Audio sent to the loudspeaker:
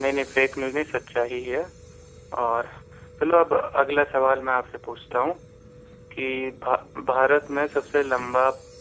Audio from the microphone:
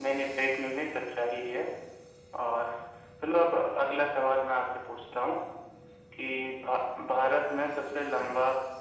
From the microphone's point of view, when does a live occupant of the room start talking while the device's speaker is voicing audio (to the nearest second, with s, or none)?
none